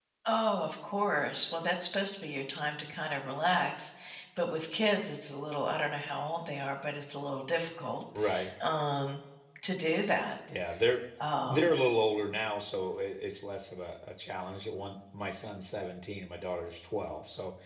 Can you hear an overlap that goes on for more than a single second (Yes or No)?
No